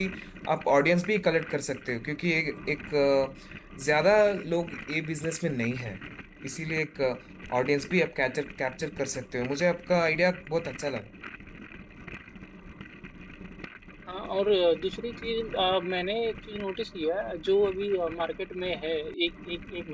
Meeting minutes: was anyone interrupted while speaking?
No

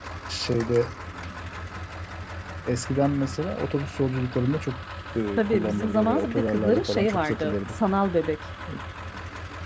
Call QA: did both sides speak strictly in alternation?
No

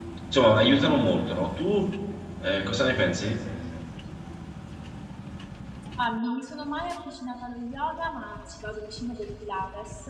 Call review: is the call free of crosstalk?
Yes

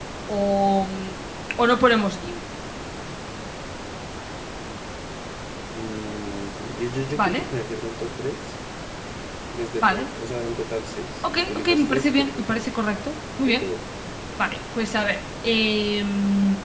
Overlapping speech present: Yes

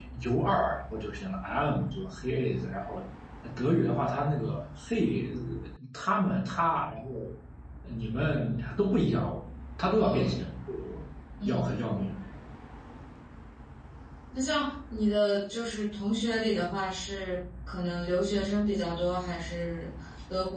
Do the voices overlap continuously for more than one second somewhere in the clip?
No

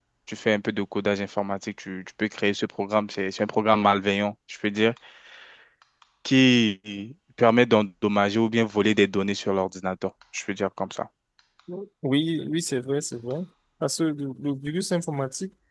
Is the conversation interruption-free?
Yes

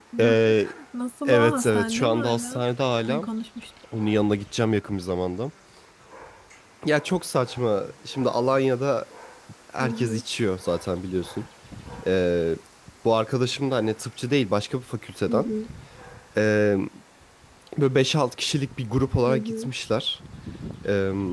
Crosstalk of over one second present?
Yes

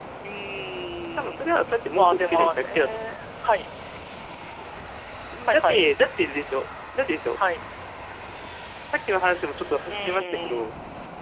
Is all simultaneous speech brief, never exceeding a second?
No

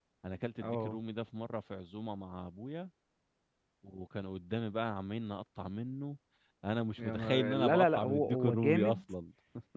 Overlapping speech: Yes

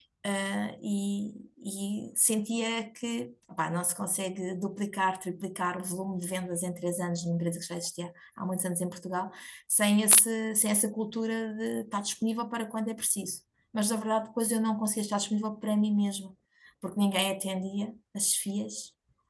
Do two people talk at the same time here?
No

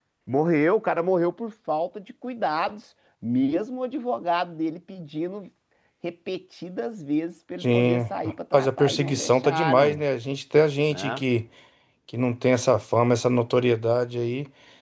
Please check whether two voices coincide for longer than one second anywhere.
Yes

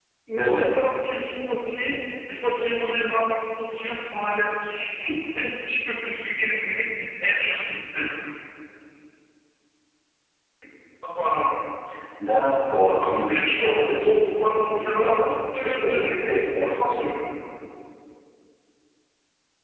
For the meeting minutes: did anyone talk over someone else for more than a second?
Yes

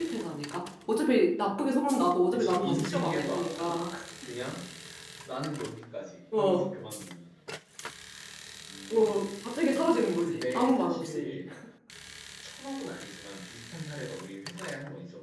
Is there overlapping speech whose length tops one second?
Yes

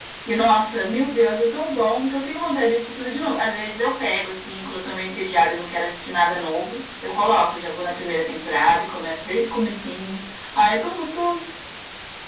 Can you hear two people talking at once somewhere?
No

